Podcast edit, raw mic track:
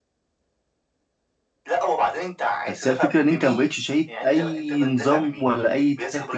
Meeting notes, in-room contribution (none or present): present